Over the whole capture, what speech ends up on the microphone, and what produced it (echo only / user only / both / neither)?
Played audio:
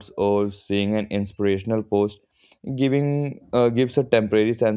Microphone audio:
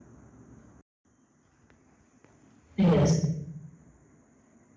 user only